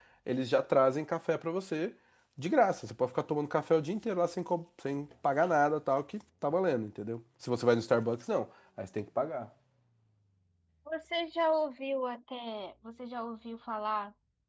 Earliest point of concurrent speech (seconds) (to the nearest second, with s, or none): none